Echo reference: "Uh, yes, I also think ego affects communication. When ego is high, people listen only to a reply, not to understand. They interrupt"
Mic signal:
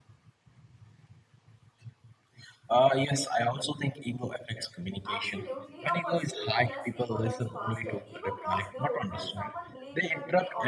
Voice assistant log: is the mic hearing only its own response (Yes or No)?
No